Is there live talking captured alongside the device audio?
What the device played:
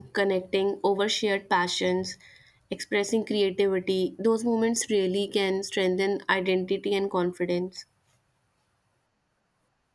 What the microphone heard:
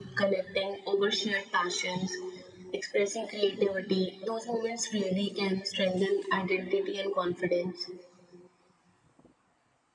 No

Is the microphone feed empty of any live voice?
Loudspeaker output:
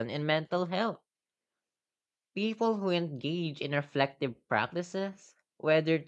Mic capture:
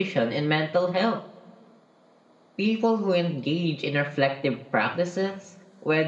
Yes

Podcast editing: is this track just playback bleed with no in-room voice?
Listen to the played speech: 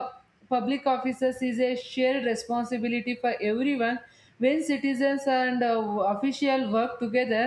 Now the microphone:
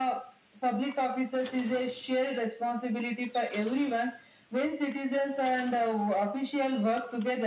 Yes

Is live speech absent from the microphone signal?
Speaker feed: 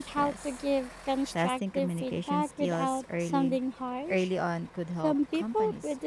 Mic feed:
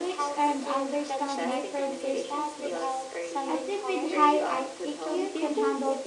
No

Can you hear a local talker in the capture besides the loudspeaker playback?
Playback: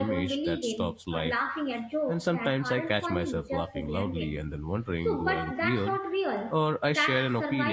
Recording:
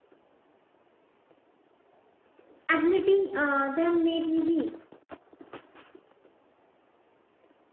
Yes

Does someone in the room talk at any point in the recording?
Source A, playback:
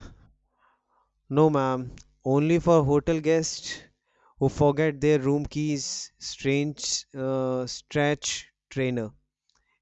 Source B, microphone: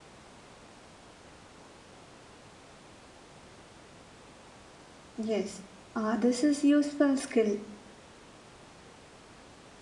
Yes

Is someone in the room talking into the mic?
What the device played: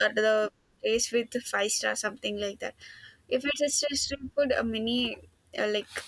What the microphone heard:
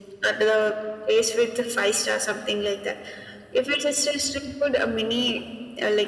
No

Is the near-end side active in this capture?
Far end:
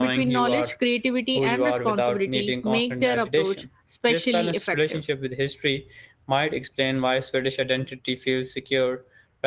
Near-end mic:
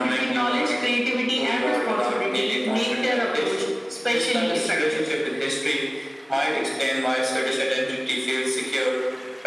No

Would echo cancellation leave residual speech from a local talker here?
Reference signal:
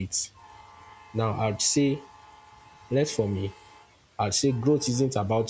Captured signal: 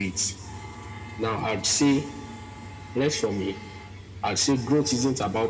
No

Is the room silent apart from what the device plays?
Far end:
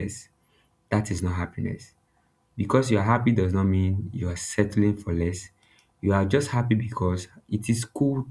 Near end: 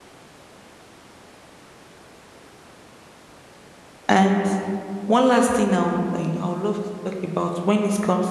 No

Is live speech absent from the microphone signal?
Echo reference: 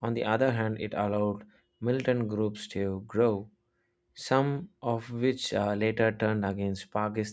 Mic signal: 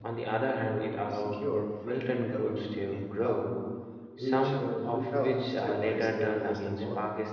No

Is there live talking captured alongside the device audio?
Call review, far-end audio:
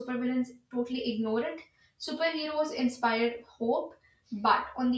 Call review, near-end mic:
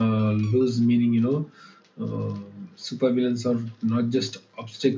Yes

